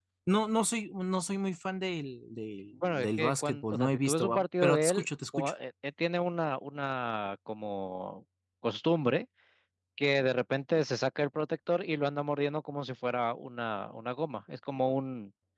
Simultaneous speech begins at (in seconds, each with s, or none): 2.8 s